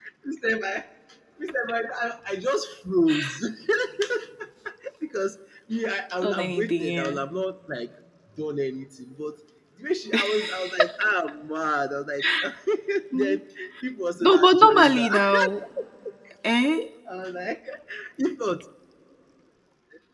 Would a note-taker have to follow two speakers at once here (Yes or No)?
Yes